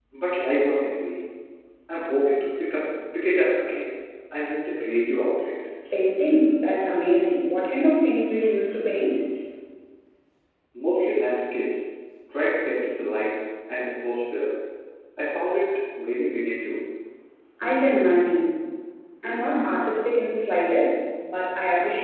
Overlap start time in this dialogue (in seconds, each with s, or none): none